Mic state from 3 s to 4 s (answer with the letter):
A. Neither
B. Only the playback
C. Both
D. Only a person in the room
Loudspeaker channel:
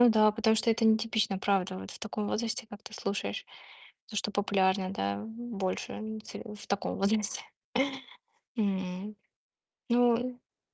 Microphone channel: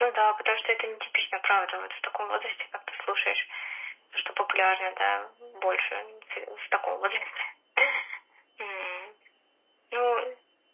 B